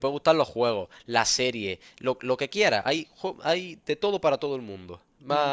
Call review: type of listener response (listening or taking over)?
listening